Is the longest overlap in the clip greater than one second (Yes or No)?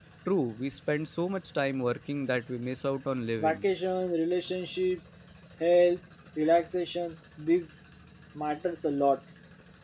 No